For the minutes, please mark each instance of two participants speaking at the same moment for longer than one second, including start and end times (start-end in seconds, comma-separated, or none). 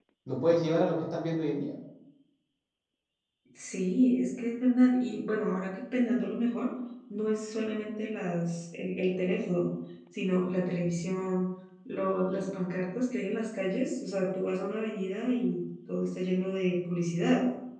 none